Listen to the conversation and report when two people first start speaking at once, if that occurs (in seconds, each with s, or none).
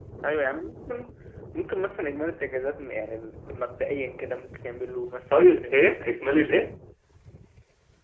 5.3 s